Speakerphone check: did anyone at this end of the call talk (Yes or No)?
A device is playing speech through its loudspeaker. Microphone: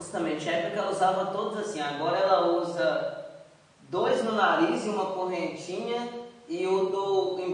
Yes